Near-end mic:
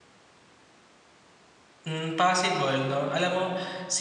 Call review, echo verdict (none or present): none